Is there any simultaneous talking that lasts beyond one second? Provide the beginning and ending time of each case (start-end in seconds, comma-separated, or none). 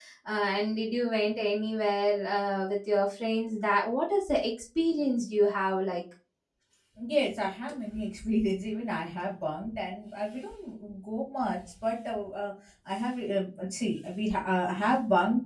none